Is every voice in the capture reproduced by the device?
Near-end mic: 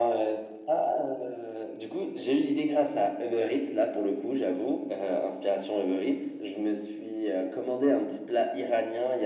Yes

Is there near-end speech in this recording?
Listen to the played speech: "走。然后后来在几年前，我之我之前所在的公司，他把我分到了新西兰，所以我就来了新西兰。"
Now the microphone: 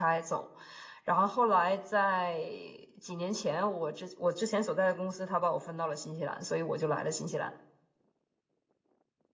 No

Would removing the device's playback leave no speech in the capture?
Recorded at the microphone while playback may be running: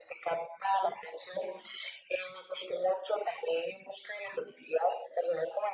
Yes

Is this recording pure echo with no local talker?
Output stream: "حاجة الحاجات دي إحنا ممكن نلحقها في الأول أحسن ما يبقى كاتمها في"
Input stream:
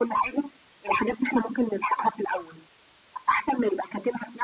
Yes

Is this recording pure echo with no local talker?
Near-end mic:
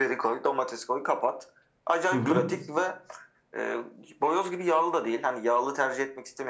No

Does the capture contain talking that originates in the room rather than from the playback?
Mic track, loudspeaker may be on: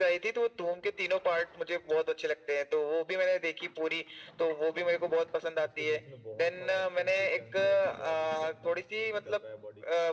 Yes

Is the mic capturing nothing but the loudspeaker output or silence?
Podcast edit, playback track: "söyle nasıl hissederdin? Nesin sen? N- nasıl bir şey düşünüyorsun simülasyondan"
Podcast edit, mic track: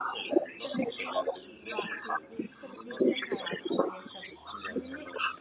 No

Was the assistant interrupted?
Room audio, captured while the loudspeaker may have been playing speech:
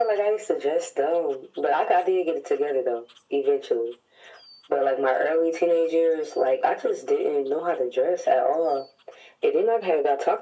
No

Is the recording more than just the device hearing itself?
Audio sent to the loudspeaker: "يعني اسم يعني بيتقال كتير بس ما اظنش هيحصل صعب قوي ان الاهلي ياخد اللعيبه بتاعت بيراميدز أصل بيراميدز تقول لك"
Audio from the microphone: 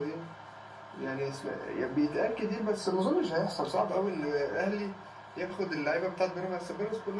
No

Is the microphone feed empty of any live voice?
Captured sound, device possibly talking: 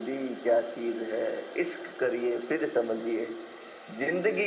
Yes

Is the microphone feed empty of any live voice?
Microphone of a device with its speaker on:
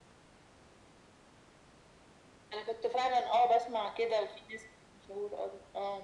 Yes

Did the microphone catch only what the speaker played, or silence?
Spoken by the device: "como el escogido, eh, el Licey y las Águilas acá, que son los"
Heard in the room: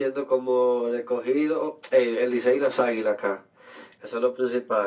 Yes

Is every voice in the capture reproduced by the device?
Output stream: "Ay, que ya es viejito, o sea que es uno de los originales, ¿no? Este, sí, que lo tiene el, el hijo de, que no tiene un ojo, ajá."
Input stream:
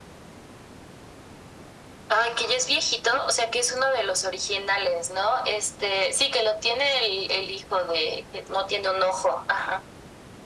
Yes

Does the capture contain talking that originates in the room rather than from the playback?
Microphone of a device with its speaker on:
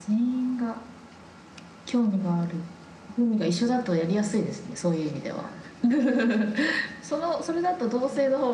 No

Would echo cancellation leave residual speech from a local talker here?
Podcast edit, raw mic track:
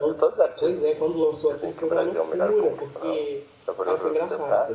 Yes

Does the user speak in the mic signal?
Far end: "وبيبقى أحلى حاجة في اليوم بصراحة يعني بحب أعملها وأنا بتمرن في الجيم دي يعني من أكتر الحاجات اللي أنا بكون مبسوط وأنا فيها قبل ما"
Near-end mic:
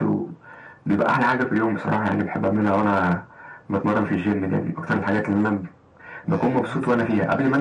Yes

